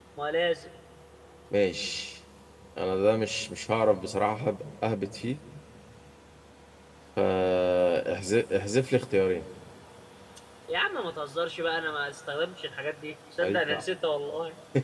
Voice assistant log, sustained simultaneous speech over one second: none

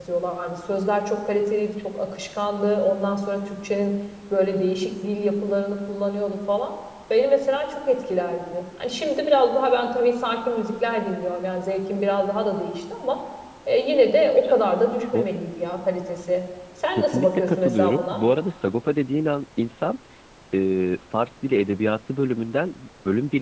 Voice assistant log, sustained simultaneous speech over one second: present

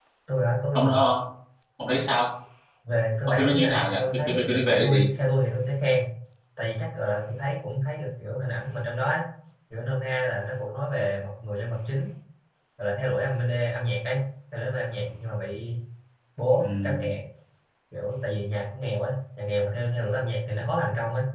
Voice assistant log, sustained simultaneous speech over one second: present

